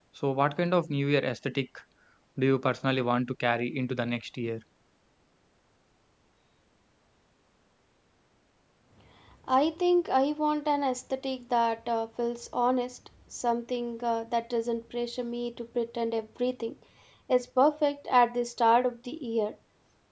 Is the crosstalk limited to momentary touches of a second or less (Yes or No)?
Yes